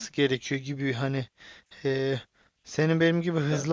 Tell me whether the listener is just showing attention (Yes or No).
Yes